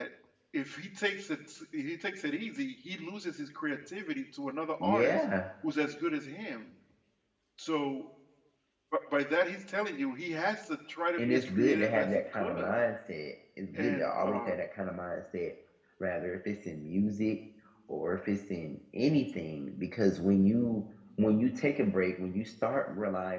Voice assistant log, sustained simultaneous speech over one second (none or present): present